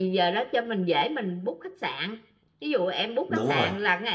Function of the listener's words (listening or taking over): listening